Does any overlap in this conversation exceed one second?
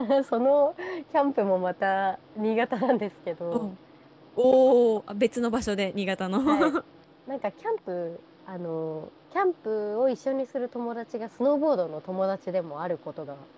No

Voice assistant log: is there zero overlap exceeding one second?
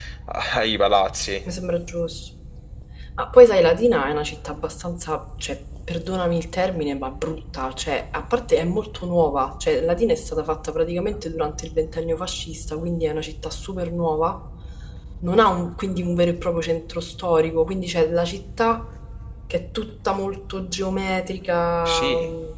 Yes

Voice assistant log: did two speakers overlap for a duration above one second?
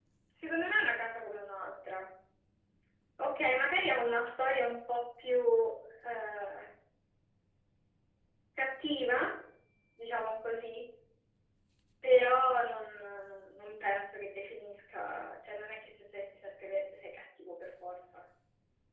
No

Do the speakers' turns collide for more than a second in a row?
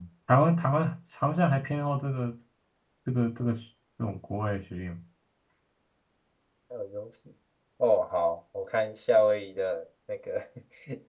No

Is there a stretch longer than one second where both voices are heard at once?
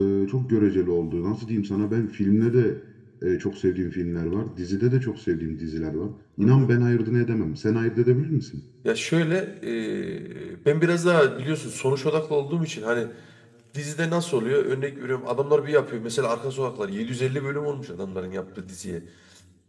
No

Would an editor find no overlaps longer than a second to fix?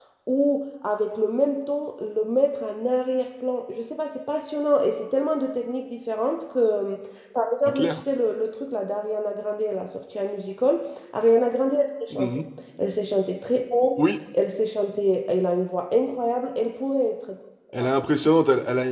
Yes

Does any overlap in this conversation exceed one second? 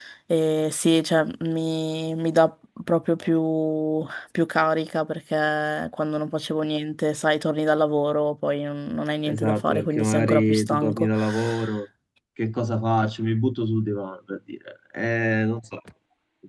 Yes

